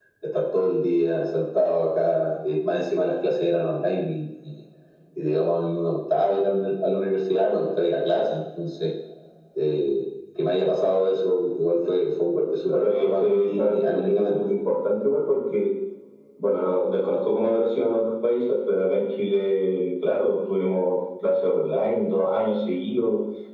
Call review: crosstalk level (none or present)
present